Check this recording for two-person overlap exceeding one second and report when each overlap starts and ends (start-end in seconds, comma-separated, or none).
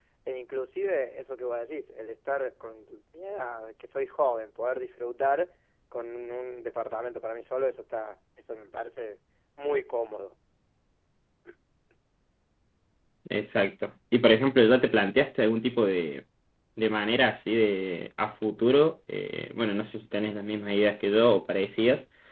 none